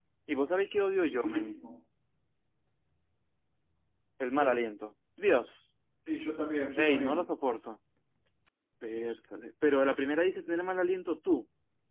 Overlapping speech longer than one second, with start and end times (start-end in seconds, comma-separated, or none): none